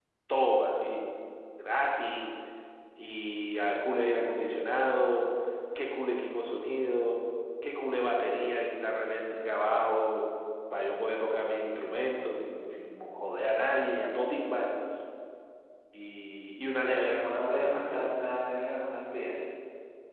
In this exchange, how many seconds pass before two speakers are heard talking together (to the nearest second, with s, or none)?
17 s